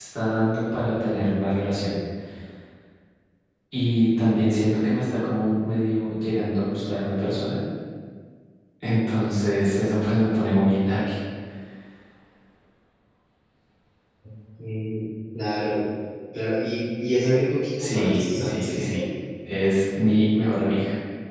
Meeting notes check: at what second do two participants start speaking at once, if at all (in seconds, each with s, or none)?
17.8 s